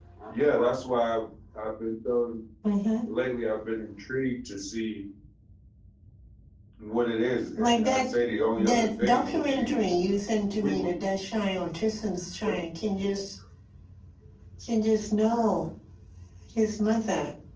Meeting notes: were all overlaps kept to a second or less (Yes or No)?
No